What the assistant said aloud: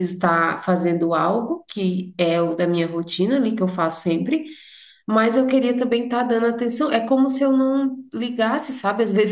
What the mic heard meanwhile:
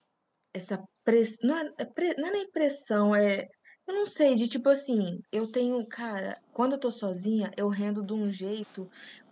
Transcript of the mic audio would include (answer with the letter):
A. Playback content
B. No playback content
B